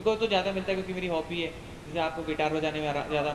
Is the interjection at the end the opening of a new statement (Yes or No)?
Yes